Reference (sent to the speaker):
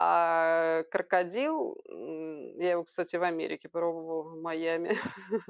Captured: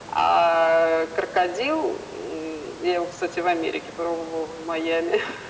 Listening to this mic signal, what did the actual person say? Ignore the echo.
none

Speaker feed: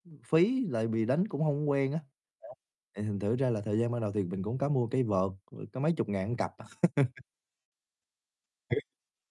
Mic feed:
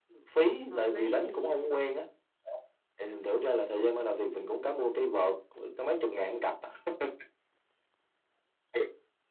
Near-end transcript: hợp lý nè.

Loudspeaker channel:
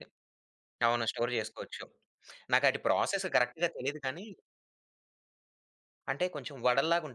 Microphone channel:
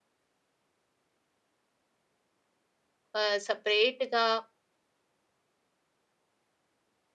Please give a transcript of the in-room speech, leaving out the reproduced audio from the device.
ఆహ్, సెపరేట్‌గా

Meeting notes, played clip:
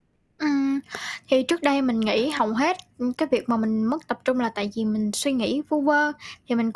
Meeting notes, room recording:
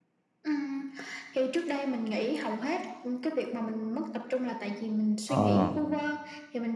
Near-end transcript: Ờ.

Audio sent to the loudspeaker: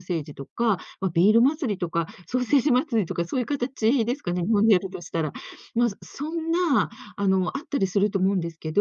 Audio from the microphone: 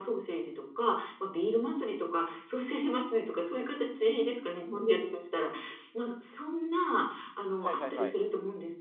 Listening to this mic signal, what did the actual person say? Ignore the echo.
はいはいはい。

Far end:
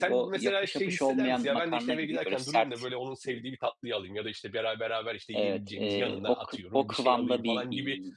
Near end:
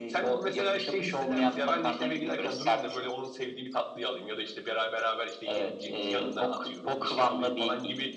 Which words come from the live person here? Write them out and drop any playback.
none

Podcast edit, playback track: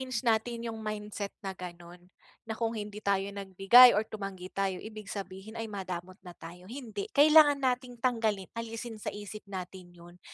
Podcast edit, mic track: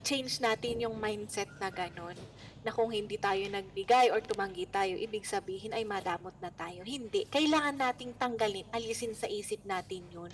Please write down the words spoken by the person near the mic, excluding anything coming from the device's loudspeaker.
none

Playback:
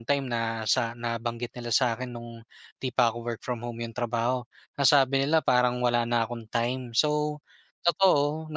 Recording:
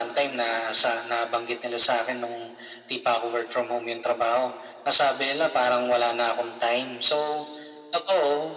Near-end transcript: none

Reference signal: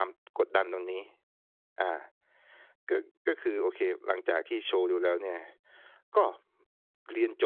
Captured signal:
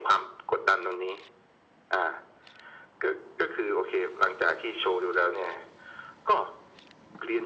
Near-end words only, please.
none

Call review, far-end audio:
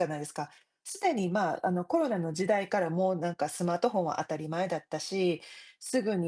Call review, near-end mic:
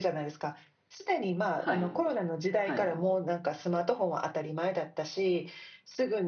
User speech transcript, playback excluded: はい。はい。

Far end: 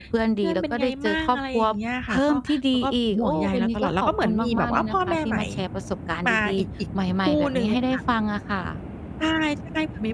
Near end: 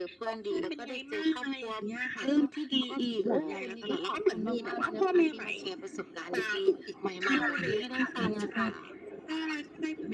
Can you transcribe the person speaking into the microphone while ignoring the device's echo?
ค่ะ ค่ะ ใช่

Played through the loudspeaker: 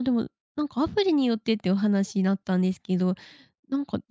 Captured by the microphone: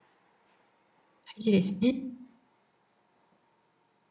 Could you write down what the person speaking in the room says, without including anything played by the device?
事ですね。

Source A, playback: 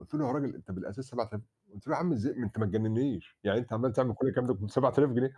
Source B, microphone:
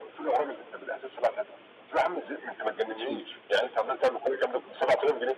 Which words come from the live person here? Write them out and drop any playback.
أسود.

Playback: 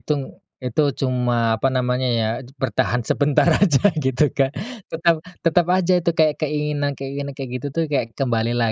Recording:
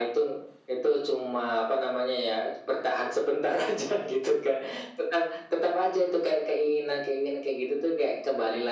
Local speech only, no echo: none

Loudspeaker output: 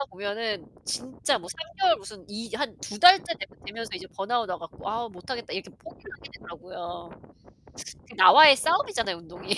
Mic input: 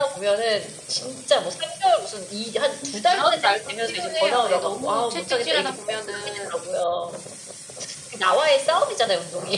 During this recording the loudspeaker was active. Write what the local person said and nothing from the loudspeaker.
근데 그런 날도 필요해요. 예 너무 채찍질하다 보면은

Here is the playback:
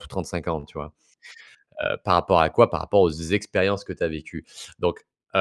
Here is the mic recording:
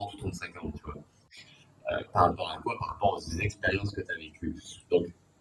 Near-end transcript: none

